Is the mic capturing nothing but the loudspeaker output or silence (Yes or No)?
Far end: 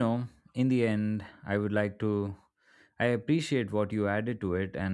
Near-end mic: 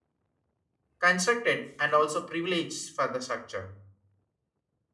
No